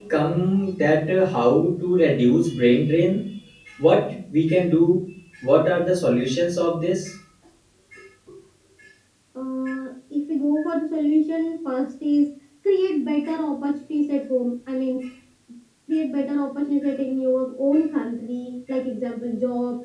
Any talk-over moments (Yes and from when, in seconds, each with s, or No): No